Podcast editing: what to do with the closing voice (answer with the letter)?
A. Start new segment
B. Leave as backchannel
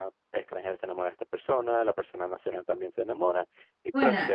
B